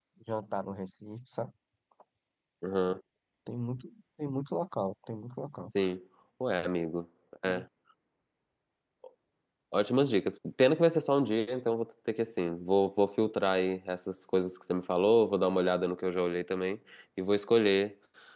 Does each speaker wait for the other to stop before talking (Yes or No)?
Yes